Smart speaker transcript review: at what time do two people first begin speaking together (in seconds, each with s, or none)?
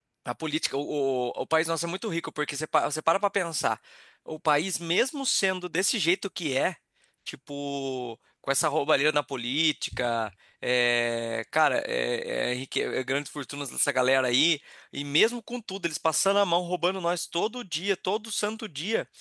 none